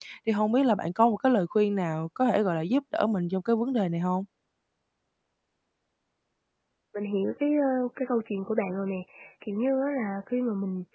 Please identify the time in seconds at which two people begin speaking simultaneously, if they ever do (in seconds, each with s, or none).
none